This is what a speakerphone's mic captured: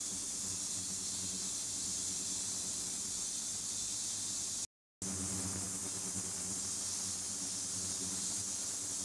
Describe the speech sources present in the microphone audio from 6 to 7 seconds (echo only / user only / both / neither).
neither